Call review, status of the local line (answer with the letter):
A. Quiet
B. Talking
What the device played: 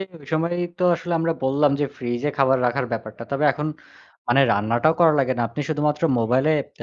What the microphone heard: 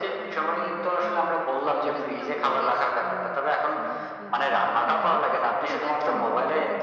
B